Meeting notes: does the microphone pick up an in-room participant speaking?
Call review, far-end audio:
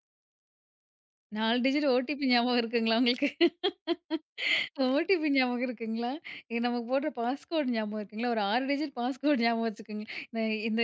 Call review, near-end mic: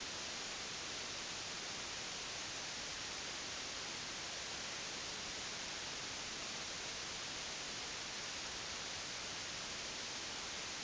No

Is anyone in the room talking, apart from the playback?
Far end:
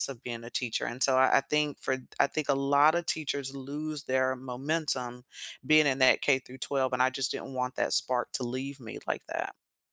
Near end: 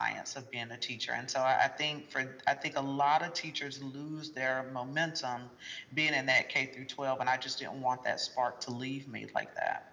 No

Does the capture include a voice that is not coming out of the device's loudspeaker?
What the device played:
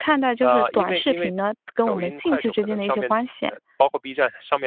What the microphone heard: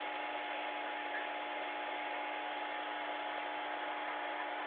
No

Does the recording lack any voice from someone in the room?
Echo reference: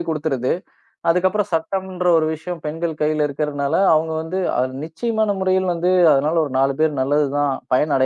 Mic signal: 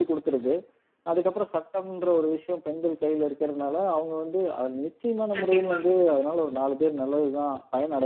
No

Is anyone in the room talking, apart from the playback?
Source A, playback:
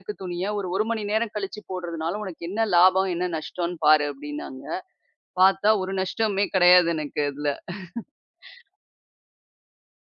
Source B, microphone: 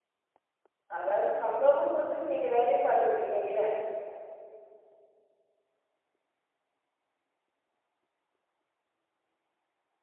Yes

